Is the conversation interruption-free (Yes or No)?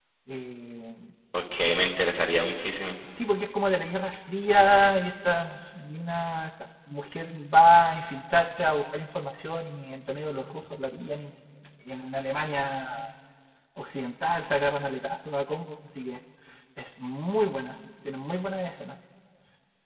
Yes